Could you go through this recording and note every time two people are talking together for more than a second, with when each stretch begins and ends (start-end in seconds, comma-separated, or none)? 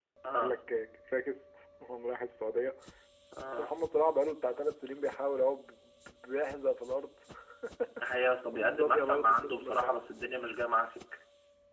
8.5-10.1